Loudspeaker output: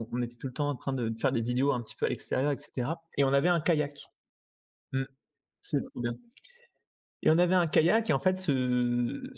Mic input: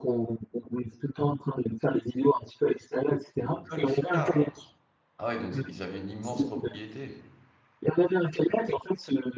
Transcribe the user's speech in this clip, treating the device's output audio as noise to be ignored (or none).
Le golf car? Ah ouais, donc ils ils avaient une immense propriété.